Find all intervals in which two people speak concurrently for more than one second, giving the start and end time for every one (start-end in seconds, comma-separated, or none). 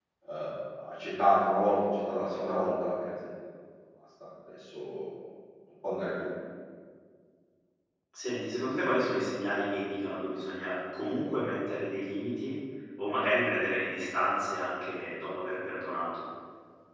none